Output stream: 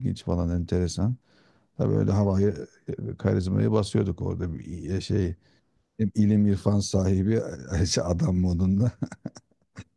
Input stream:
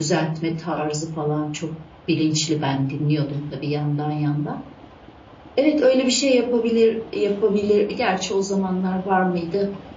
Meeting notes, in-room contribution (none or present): present